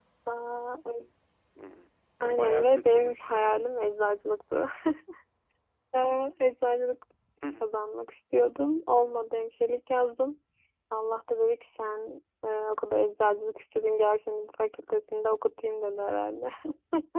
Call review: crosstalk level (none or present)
present